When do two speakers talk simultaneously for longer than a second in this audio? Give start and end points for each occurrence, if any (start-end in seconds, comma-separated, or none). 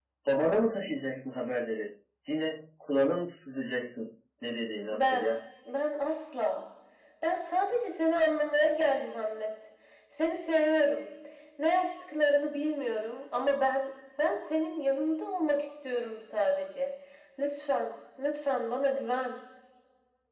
none